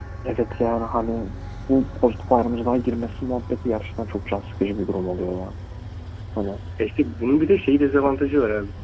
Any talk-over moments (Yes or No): No